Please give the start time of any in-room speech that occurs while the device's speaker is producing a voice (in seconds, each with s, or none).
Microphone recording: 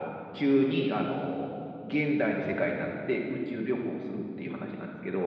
none